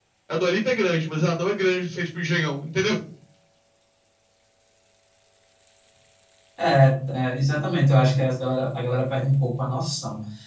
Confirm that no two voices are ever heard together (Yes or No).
Yes